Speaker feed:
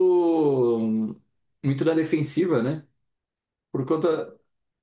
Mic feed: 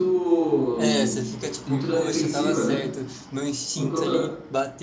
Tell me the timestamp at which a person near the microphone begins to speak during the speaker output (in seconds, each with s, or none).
0.8 s